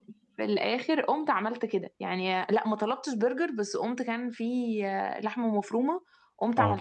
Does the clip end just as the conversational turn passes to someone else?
No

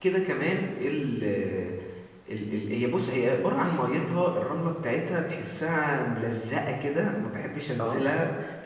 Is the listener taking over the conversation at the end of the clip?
No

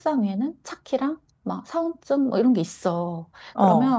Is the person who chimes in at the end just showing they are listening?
Yes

